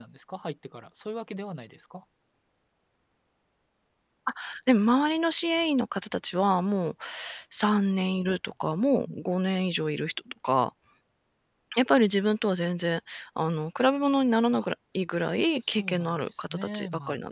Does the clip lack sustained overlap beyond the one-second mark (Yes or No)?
No